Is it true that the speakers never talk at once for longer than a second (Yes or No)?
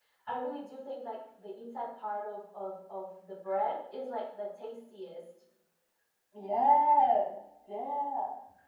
Yes